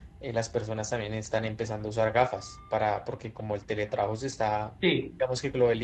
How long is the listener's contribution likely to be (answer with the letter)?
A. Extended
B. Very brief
B